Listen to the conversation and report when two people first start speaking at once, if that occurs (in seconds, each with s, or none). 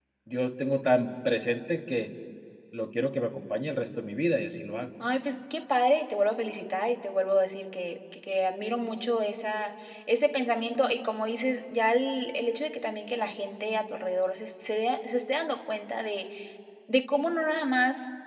none